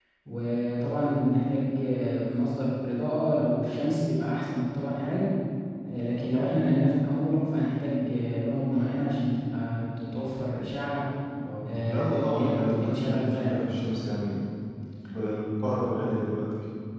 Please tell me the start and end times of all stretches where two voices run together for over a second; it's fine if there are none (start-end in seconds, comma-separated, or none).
11.7-13.7